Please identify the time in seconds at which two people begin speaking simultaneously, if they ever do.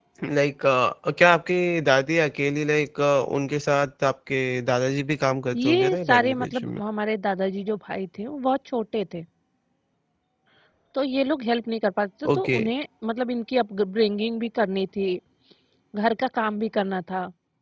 6 s

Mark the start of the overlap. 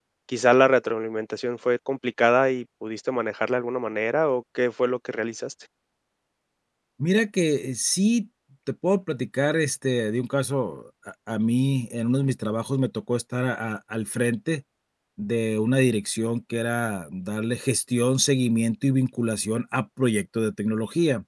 none

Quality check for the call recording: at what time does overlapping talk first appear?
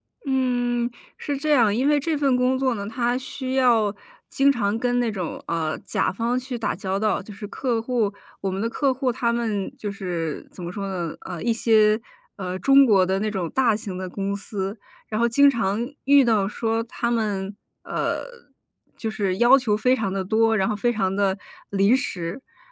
none

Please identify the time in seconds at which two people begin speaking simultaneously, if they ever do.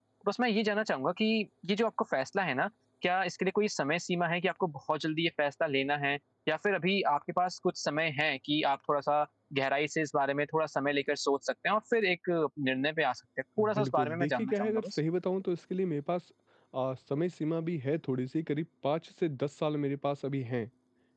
14 s

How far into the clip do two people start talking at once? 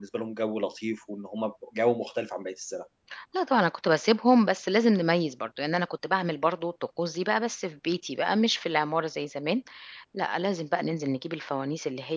none

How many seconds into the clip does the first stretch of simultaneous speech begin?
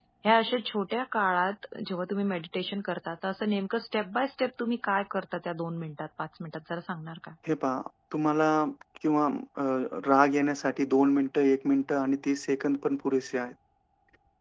none

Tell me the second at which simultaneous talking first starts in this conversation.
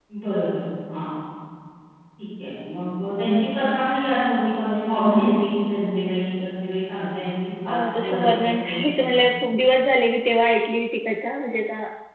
8 s

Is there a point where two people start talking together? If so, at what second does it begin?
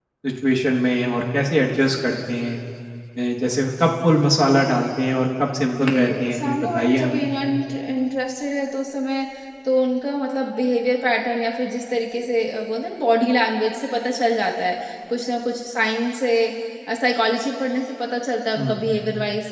6 s

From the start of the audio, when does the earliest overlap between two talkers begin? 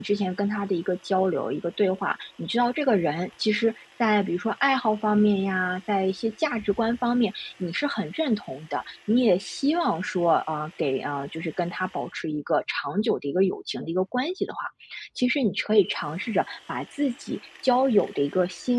none

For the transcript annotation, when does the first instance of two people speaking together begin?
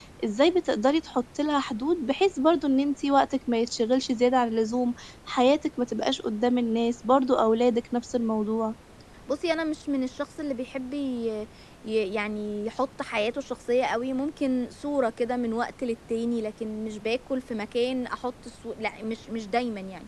none

